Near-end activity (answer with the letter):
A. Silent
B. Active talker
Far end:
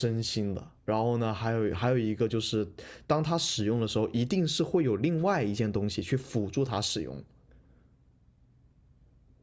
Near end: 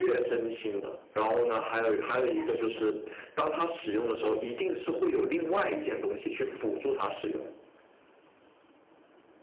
B